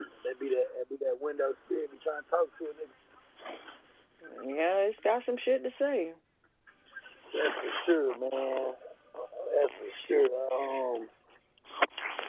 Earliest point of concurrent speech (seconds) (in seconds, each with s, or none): none